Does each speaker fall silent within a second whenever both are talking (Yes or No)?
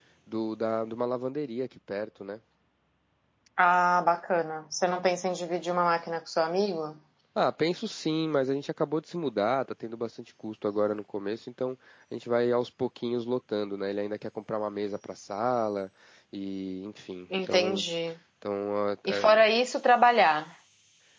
Yes